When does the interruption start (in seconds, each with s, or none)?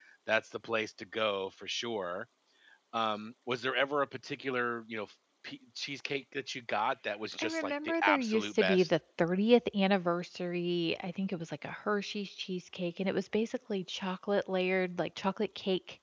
7.4 s